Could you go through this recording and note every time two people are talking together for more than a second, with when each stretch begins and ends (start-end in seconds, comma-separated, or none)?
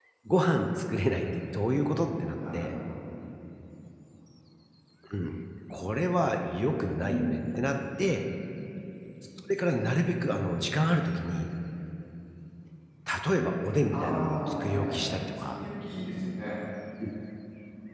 13.9-15.6